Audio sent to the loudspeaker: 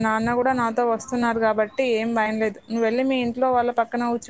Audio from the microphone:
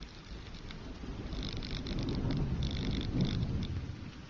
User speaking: No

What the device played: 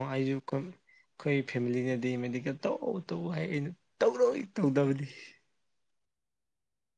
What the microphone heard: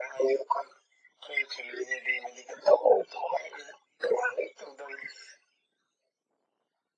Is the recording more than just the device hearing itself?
No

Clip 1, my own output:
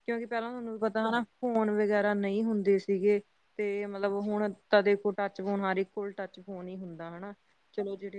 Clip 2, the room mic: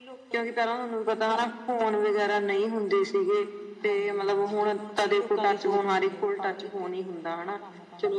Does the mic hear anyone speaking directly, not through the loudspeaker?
Yes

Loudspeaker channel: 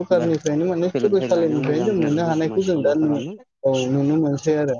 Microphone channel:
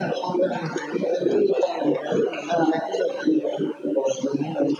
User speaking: No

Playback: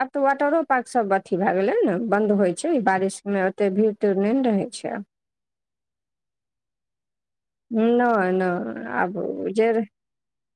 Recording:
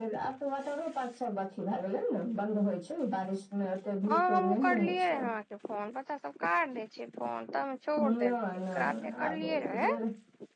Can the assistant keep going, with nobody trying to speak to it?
No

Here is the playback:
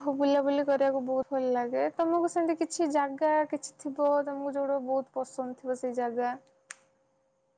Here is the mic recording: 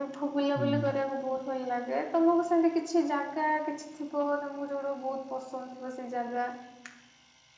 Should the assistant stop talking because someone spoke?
Yes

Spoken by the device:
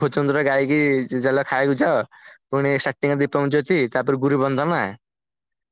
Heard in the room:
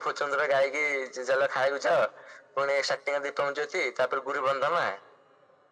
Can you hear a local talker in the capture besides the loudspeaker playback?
No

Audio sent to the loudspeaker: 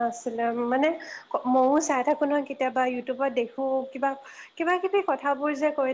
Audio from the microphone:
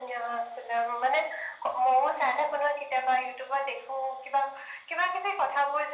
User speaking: No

